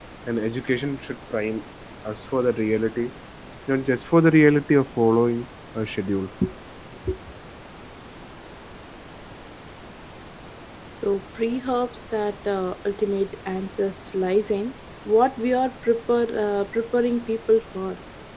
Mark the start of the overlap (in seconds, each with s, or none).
none